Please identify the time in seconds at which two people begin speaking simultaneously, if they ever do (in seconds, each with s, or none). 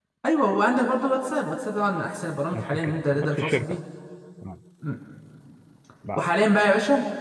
2.5 s